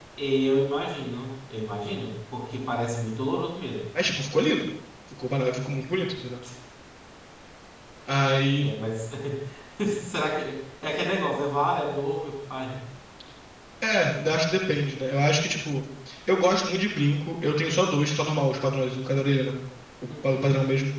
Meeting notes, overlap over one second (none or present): none